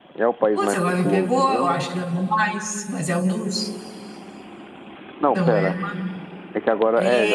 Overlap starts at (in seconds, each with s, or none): 0.6 s